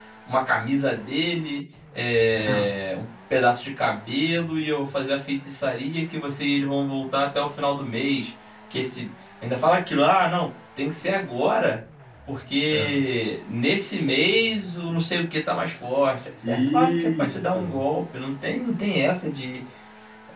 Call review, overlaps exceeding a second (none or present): present